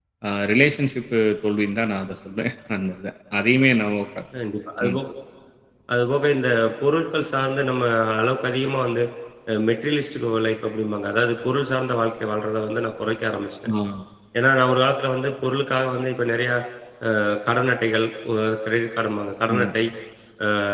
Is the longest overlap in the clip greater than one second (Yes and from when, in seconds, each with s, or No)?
No